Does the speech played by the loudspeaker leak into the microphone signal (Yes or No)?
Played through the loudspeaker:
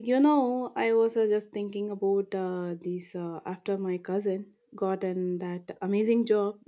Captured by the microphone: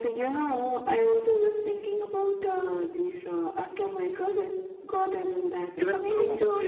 Yes